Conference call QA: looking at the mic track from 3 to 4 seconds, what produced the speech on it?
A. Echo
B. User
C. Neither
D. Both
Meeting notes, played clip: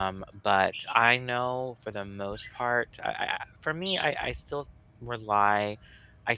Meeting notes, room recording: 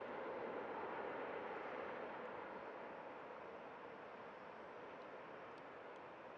C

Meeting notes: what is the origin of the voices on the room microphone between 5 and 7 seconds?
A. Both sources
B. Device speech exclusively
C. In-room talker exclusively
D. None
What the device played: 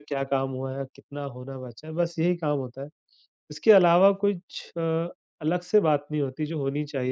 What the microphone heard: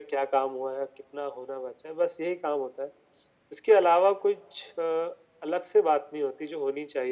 B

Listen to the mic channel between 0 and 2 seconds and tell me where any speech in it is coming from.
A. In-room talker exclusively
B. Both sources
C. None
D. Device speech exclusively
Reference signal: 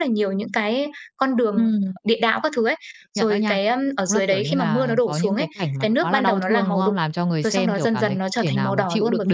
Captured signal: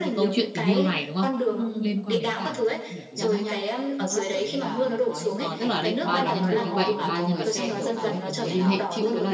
B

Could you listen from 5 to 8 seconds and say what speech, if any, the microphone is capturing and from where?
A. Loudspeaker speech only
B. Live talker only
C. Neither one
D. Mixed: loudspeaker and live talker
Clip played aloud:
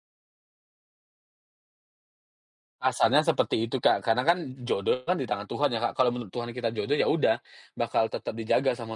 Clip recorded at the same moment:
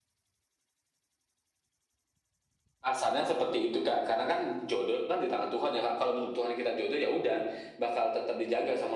A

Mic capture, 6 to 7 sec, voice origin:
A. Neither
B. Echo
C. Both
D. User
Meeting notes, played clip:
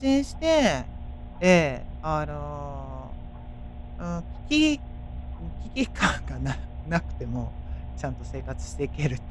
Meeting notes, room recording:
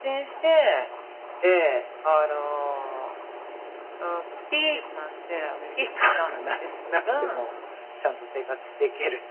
C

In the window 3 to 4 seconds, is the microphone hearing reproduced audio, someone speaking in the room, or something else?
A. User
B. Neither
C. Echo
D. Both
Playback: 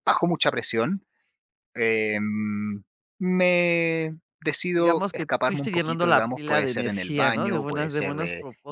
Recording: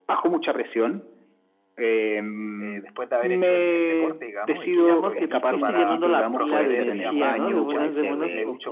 D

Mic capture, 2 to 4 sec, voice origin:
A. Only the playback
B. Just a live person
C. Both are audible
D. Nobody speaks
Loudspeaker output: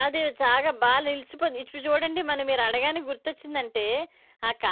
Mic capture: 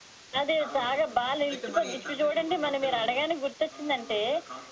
C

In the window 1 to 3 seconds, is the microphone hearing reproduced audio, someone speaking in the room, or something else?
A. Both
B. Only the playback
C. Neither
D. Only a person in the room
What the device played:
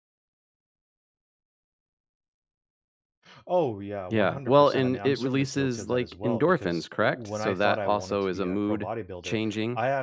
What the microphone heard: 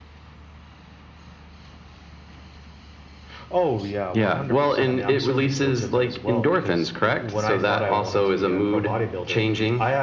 C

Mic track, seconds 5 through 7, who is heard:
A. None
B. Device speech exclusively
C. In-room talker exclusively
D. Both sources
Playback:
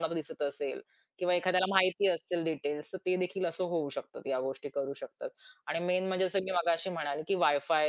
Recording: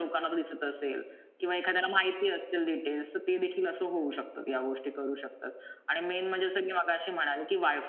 B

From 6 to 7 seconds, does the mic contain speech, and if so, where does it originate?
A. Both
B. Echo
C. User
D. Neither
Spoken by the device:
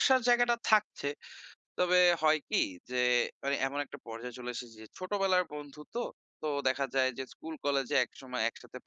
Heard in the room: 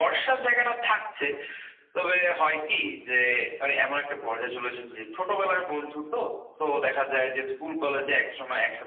B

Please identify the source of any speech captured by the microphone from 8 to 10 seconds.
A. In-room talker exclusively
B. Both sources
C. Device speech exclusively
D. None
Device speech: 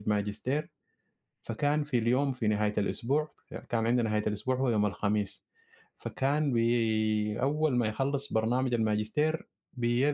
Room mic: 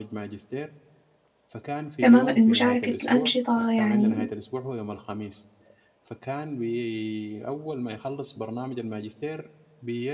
C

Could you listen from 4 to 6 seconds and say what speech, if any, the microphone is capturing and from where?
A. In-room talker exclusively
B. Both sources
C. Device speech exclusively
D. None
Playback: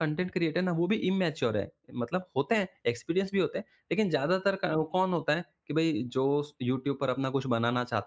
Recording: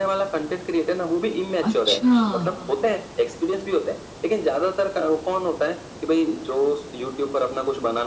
C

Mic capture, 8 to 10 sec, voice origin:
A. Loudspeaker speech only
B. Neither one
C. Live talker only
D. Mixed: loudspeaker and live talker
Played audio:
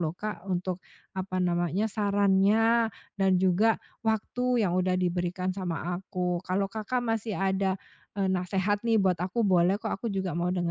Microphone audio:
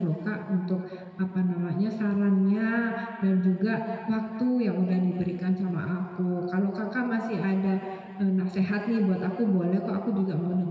A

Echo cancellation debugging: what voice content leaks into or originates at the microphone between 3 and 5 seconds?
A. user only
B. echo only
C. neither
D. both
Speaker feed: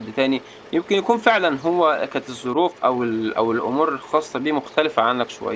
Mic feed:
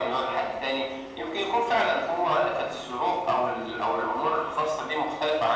B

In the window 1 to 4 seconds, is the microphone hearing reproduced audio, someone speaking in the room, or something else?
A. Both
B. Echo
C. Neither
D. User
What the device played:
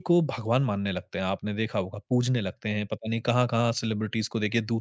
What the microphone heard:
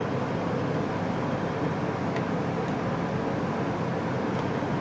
C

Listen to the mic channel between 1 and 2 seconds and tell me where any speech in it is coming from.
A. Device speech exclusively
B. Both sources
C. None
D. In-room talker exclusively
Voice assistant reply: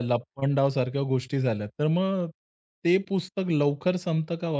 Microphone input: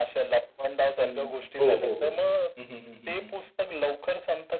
B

